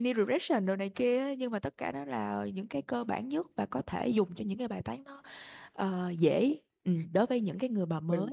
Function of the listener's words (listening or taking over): taking over